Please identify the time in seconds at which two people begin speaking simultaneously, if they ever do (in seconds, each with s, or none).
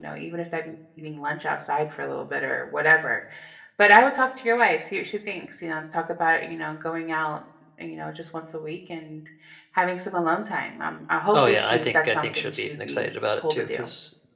11.3 s